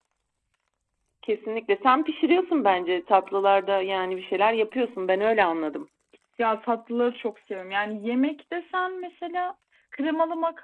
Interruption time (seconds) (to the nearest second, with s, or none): none